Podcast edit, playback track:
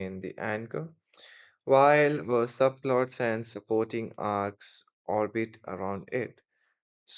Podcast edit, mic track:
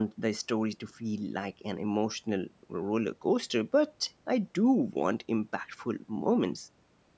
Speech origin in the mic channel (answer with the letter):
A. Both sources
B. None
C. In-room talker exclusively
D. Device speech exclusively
C